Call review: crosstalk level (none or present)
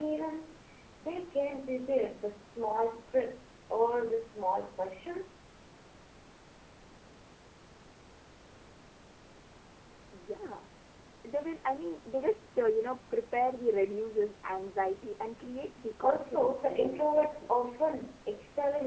present